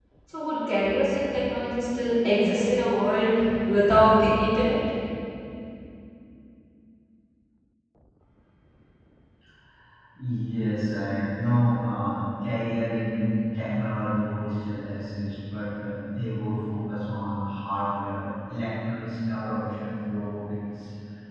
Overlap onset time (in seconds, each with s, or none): none